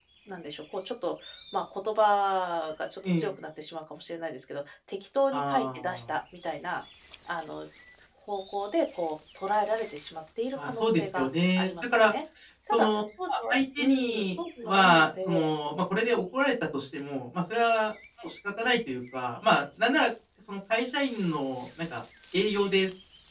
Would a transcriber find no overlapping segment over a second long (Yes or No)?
No